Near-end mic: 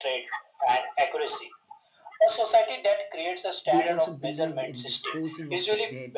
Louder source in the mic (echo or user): echo